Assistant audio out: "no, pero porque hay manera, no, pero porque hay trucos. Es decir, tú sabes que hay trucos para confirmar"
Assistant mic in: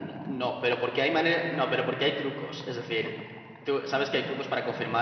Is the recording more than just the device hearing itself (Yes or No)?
No